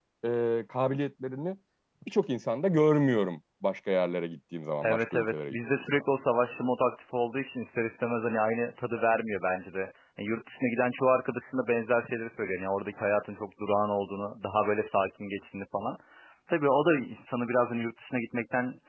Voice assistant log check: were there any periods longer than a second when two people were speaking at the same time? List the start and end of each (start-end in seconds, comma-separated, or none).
4.8-6.0